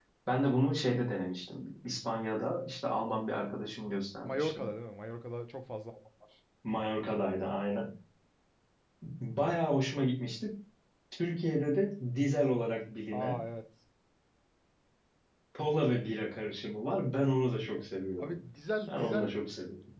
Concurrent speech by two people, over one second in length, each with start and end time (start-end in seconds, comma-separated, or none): none